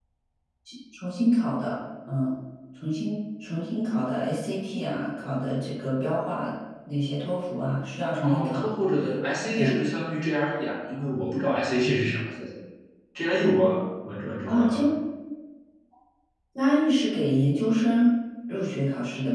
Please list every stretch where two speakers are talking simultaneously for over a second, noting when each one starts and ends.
none

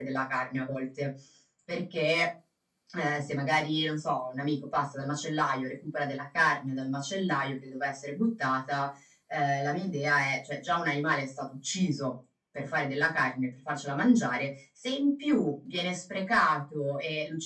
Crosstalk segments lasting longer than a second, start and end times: none

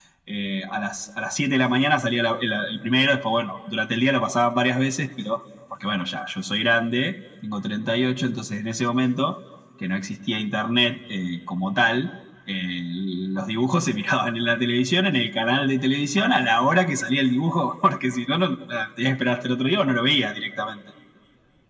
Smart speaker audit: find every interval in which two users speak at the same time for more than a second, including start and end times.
none

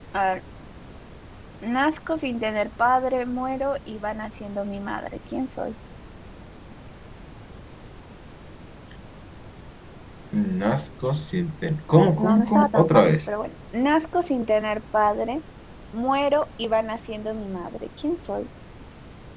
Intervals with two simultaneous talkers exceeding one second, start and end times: 11.9-13.2

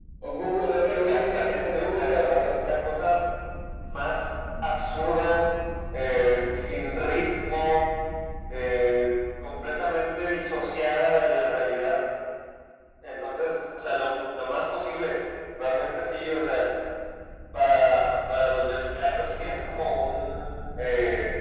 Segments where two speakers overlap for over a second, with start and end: 0.8-2.4

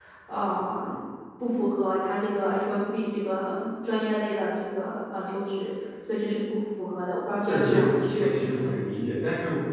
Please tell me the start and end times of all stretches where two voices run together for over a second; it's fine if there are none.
7.5-8.9

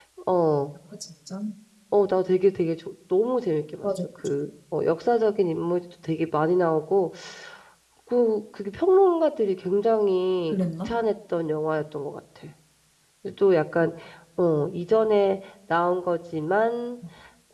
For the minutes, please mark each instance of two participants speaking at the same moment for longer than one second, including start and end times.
none

